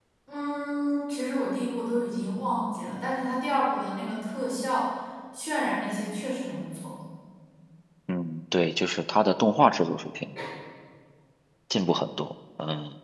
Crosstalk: none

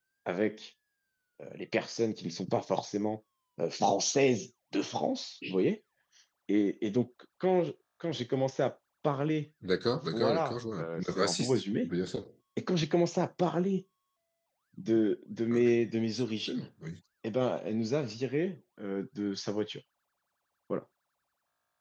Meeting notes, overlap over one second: present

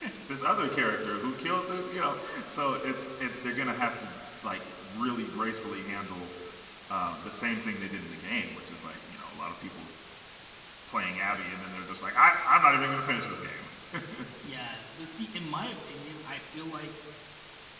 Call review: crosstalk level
none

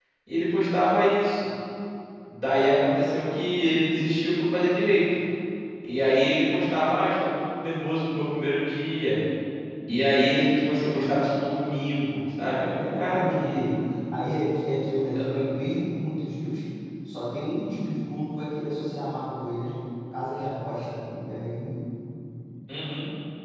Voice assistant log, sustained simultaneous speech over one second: present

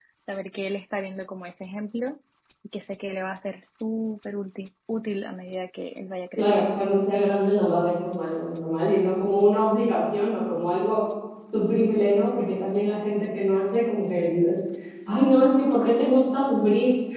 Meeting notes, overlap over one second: none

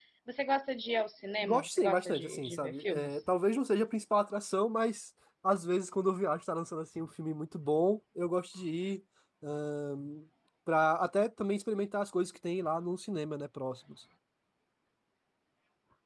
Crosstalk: present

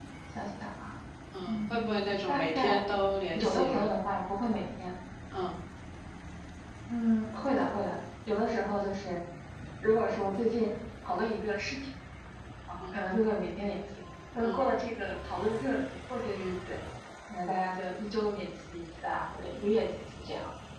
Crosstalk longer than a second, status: present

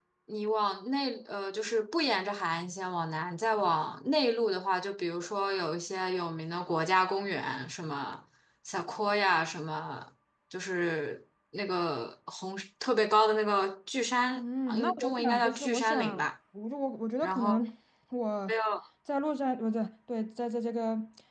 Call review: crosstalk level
present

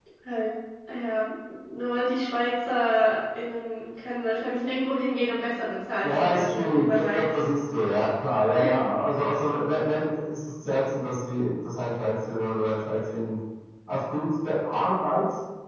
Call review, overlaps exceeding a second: present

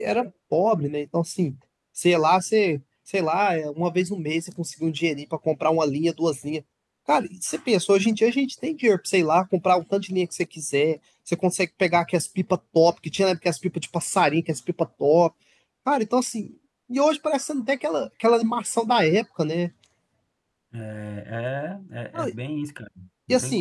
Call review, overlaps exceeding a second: none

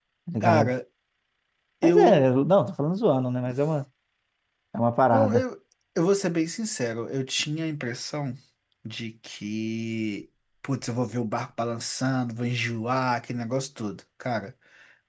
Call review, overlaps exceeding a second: none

